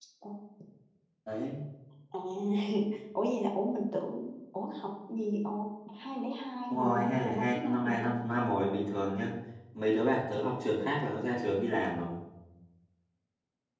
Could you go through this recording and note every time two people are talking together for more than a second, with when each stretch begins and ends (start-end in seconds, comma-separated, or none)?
6.7-8.1